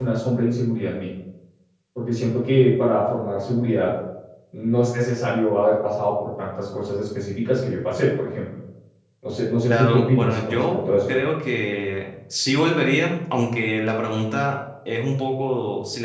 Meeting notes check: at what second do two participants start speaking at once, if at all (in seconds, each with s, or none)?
9.6 s